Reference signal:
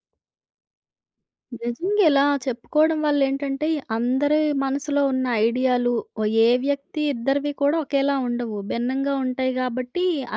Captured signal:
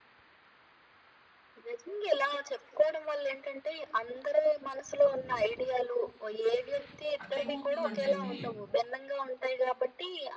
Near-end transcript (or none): అక్కడ ఏమవుతుందంటే అండి,